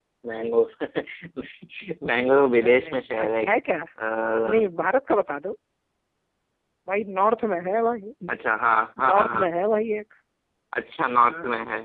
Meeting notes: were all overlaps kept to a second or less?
Yes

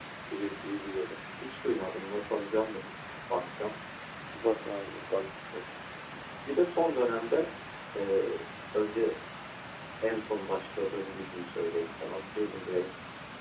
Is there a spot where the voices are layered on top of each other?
No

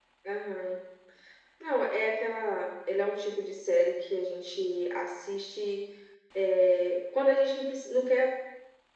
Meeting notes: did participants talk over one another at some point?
No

